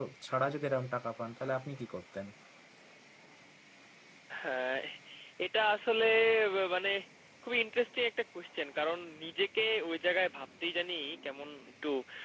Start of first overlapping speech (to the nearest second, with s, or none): none